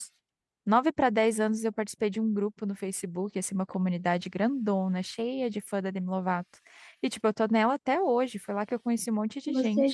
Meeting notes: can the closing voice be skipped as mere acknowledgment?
No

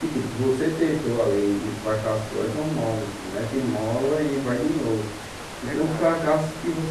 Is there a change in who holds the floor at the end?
No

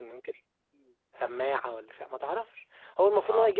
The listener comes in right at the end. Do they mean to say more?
No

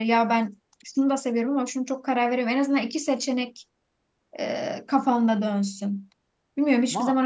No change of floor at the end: Yes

